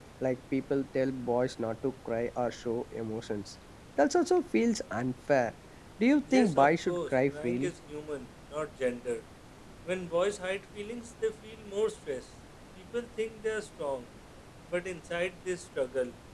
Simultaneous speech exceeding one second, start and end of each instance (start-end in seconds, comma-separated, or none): 6.3-7.7